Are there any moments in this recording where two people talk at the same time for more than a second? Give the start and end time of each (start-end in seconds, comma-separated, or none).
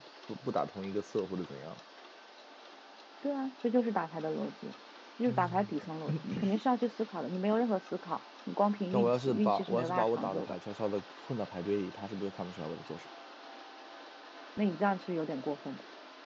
8.9-10.6